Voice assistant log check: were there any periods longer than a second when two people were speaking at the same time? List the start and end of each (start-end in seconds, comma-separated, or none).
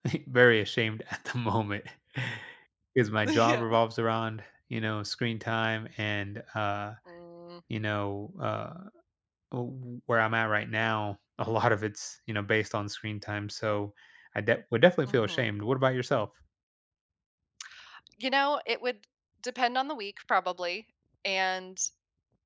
none